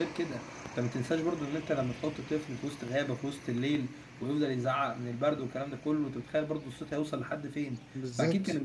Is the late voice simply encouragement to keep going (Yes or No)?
No